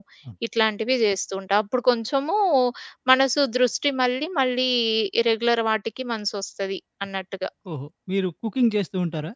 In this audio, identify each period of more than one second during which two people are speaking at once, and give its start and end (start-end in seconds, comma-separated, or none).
none